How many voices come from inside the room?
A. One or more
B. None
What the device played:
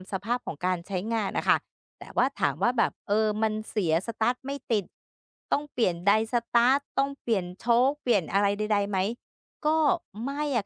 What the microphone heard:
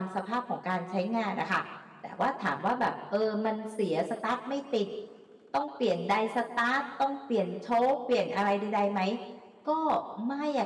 B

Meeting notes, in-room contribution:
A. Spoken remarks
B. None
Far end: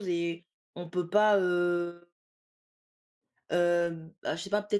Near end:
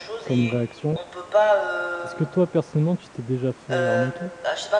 A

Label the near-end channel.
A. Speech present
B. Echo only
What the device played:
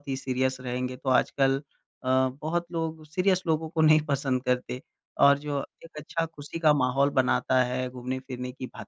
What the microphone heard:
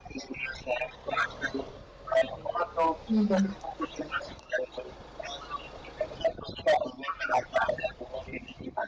A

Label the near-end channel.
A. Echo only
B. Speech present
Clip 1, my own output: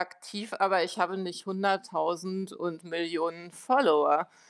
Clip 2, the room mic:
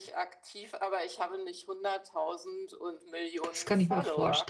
B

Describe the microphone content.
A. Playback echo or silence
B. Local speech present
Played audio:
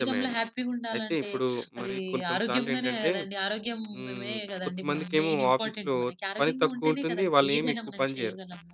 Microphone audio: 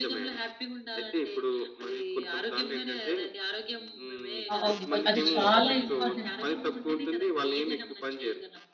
B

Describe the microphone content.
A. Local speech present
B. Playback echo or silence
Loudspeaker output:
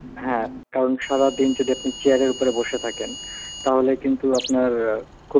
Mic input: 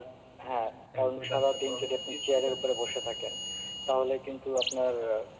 A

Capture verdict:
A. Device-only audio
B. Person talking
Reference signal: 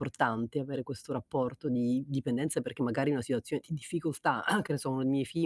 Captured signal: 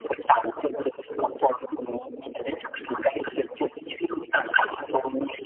A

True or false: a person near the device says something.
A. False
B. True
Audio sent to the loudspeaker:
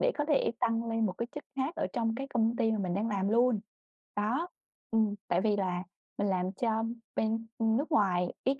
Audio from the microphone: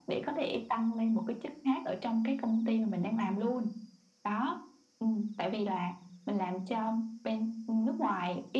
A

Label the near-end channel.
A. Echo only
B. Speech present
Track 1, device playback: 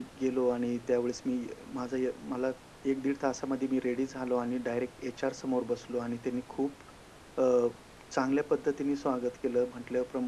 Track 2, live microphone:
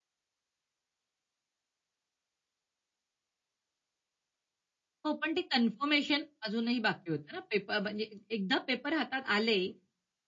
B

